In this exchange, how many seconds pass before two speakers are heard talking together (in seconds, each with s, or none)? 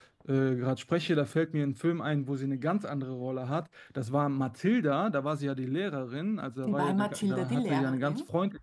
6.6 s